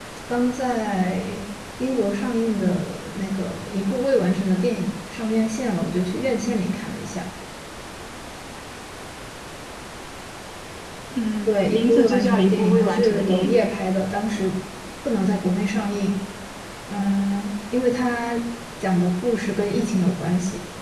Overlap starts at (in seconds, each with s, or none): 11.5 s